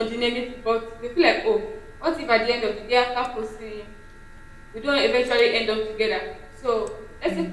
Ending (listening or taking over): listening